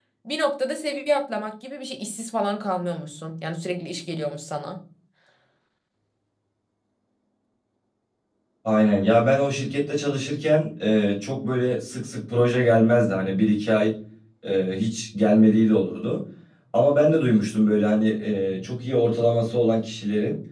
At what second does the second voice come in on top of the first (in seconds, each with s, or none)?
none